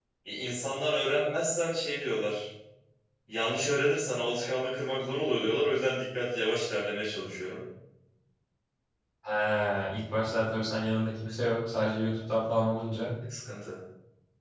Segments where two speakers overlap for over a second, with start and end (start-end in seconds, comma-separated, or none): none